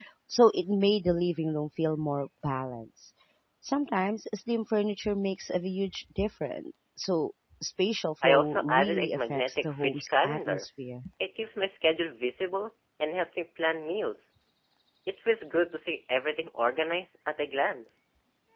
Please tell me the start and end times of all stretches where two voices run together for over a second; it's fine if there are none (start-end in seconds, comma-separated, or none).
8.2-10.7